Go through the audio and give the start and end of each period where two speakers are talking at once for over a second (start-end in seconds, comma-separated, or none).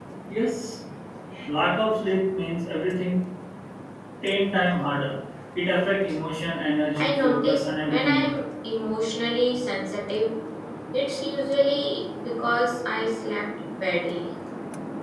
7.0-8.3